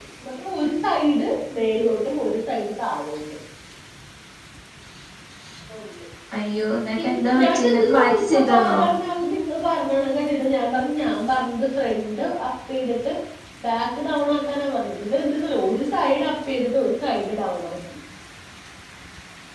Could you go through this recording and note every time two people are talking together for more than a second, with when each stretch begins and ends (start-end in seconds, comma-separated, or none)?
7.0-8.8